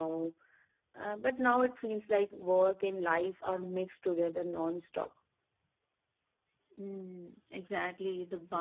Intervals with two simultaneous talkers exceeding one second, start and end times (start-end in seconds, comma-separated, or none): none